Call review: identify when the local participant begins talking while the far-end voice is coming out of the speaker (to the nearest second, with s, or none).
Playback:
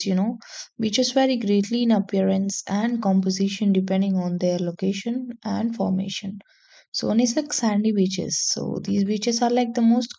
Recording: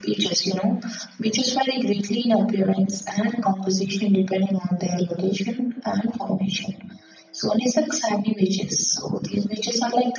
none